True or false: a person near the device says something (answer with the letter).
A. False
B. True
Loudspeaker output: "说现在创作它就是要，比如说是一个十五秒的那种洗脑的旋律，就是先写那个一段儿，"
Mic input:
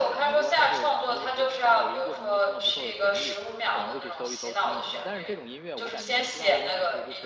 B